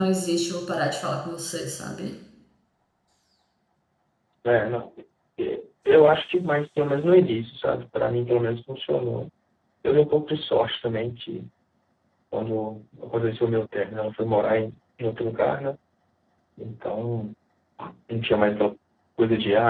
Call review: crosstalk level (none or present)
none